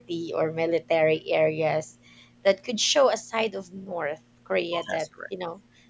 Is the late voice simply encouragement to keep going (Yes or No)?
Yes